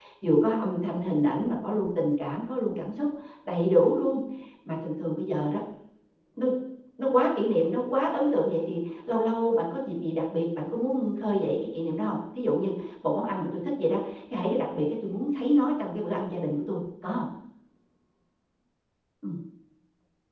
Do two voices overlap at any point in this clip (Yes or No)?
No